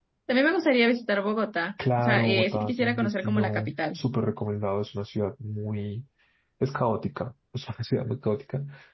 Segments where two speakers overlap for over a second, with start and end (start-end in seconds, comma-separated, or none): 2.0-3.8